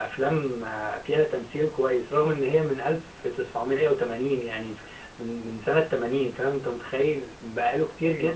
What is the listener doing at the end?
listening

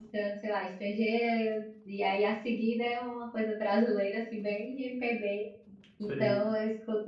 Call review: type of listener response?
listening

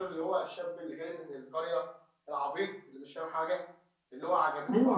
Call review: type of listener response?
taking over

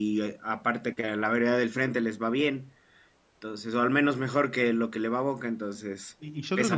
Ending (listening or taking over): taking over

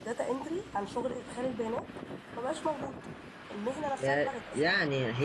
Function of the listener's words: taking over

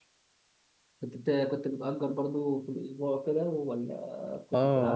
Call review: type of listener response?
taking over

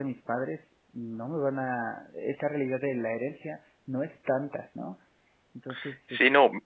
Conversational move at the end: taking over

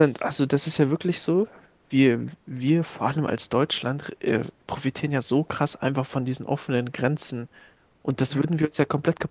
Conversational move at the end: listening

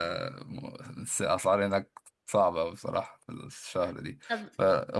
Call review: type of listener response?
listening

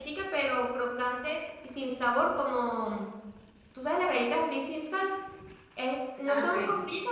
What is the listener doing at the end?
listening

